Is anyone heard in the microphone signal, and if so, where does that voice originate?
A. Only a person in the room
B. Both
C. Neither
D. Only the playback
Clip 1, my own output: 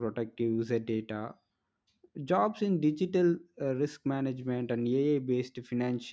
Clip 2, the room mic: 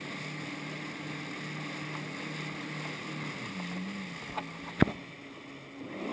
C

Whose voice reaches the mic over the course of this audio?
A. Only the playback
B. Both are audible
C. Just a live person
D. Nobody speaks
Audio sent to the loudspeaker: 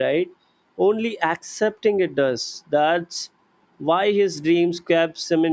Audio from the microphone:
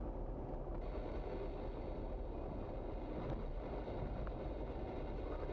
D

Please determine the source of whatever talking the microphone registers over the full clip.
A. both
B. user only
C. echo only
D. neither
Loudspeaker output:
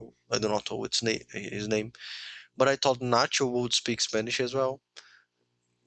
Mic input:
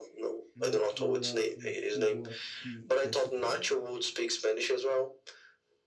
A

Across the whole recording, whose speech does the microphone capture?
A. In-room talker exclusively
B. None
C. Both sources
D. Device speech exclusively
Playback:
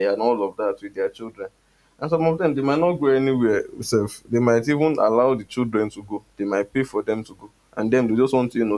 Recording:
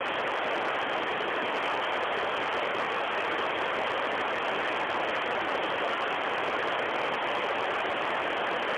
B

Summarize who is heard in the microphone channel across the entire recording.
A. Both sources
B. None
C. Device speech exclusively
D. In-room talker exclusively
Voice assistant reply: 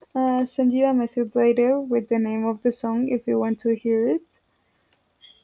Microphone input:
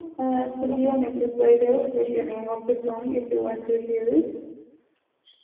A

